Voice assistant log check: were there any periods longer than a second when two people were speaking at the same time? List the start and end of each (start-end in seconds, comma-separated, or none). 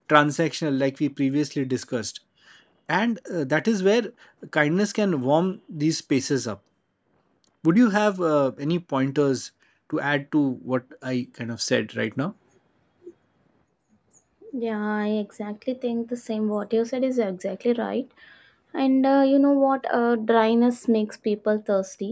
none